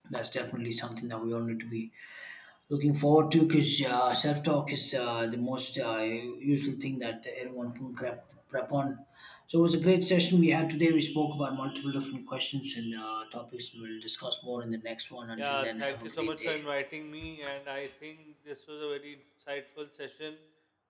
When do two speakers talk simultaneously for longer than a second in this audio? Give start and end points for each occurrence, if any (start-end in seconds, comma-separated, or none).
15.4-16.6